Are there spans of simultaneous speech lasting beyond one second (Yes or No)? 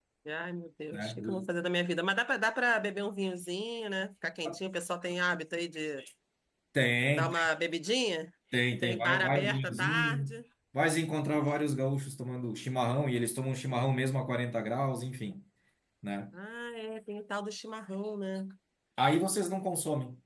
Yes